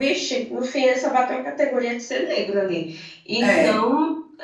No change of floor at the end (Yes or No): Yes